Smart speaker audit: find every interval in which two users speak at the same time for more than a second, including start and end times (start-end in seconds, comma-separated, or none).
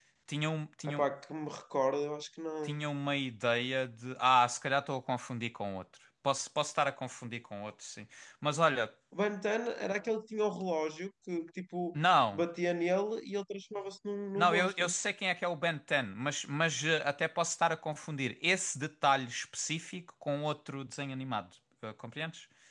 none